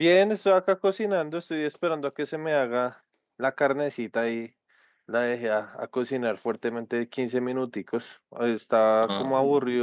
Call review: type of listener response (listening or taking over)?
listening